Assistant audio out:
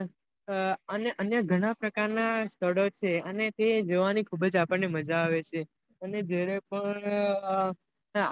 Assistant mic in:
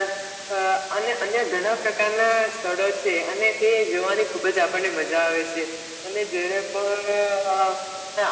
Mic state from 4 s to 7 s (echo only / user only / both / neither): echo only